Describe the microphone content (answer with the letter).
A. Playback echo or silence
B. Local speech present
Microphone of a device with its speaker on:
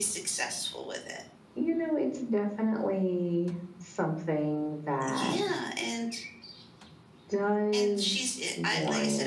A